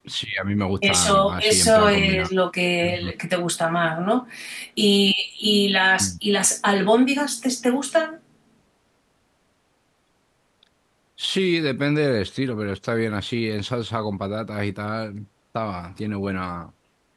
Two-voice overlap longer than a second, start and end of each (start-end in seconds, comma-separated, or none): 0.8-2.3